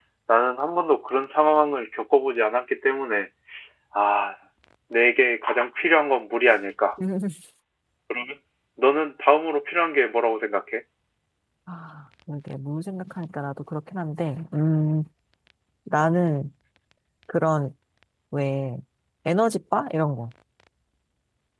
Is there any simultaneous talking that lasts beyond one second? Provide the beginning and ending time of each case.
none

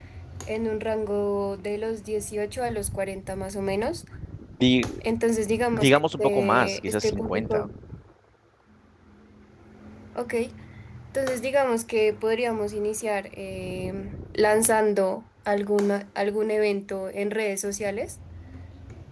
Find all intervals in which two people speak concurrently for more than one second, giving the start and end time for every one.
5.7-7.7

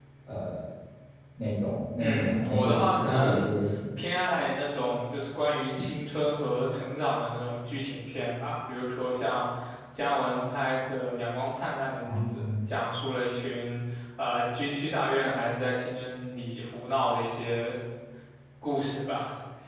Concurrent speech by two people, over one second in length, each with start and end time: 2.0-3.5

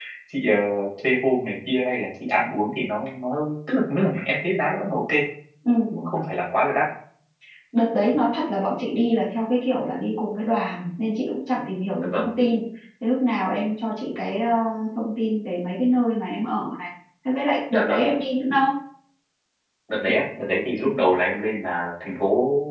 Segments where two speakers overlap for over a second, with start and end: none

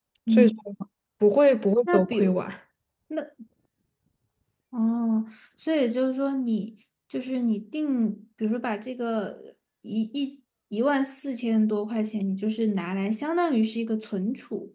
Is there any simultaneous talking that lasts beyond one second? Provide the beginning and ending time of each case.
none

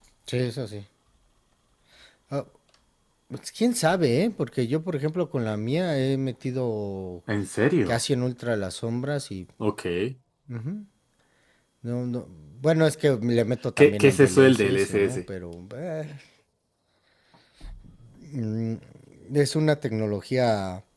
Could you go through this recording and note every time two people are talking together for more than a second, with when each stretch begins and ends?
13.8-15.2

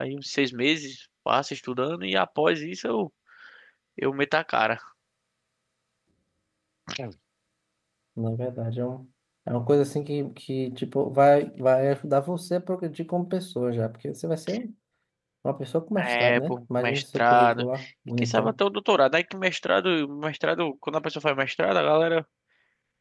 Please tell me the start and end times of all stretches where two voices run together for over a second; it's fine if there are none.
16.0-17.7

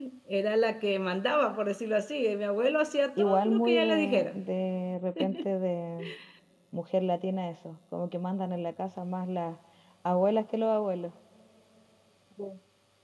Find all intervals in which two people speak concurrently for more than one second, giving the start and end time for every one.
3.2-4.4

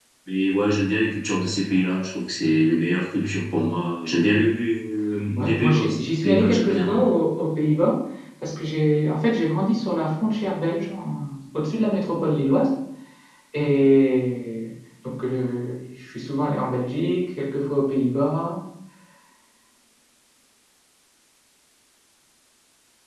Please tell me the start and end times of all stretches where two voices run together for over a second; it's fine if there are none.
5.4-7.1

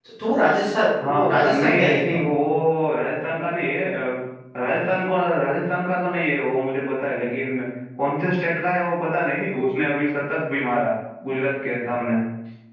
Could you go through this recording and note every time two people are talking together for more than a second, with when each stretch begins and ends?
1.0-2.3

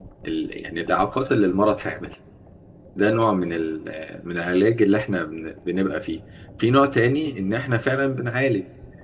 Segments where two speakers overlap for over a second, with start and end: none

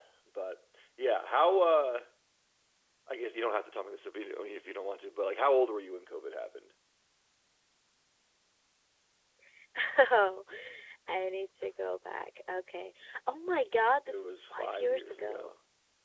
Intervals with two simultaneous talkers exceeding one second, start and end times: 14.1-15.5

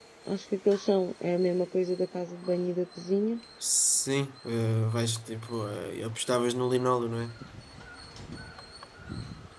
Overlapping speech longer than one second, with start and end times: none

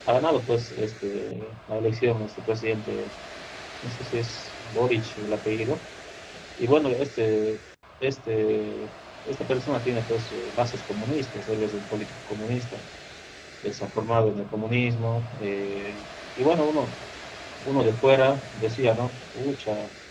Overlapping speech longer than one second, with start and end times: none

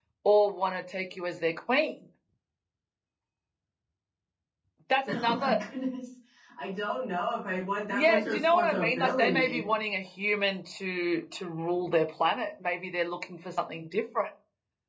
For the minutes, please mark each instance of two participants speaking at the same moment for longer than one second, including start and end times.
7.9-9.7

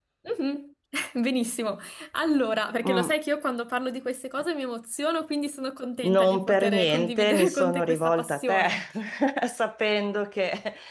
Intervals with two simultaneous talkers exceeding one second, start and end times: 6.0-8.6

